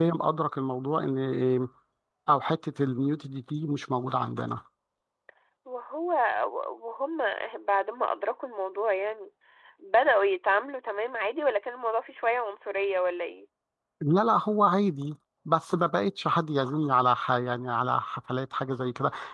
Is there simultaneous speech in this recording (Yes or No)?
No